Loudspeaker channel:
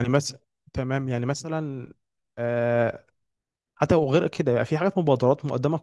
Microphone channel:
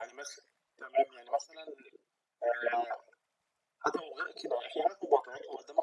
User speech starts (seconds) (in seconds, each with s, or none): none